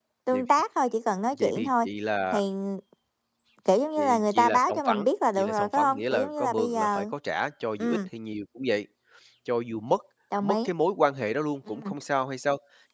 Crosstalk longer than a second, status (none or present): present